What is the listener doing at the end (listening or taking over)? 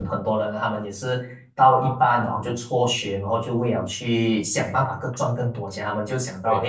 listening